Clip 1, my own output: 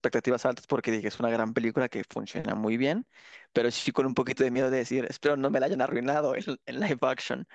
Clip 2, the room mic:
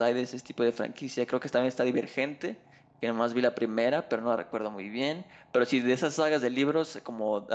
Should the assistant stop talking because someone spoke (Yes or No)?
Yes